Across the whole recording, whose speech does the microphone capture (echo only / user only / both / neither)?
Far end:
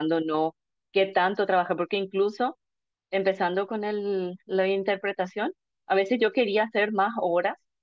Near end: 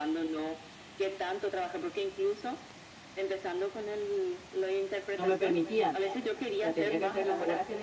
both